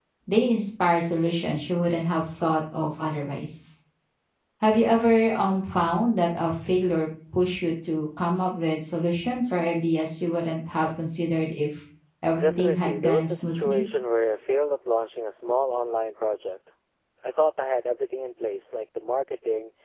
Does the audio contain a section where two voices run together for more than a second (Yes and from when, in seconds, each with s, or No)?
Yes, from 12.4 s